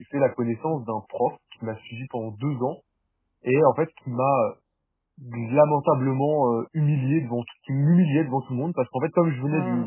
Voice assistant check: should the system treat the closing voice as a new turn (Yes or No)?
No